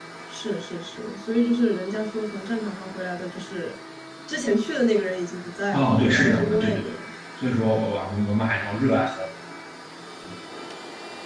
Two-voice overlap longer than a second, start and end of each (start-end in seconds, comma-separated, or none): 5.7-6.9